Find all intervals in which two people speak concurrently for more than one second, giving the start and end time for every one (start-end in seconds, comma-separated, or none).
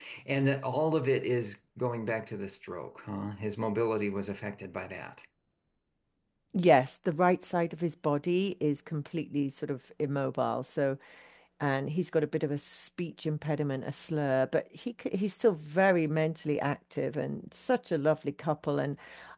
none